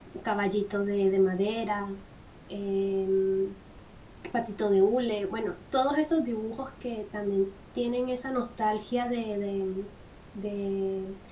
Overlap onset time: none

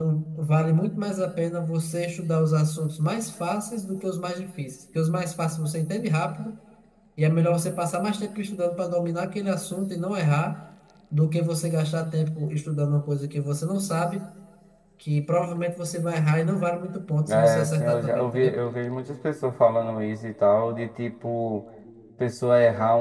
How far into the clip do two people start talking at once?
17.2 s

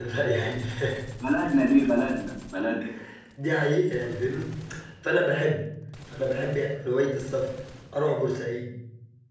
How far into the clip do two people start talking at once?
none

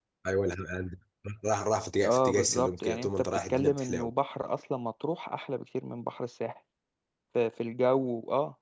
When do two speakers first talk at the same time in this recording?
2.0 s

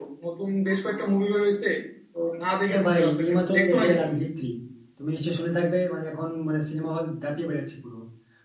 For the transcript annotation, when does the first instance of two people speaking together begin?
2.7 s

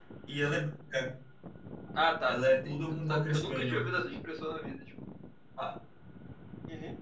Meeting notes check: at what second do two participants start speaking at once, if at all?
2.2 s

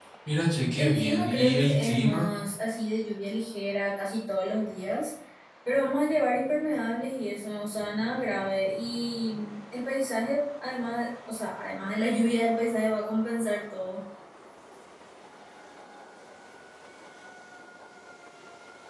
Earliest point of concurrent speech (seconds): 0.8 s

